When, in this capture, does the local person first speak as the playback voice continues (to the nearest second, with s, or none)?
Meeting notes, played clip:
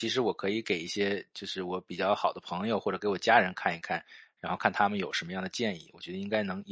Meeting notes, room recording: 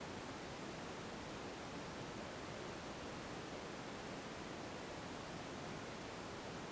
none